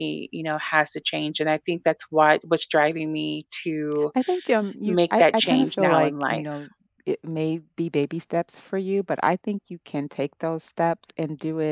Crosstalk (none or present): present